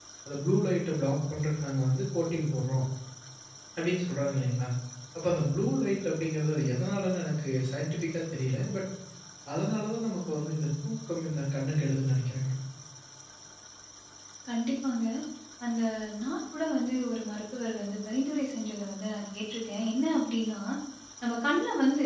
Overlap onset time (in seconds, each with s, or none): none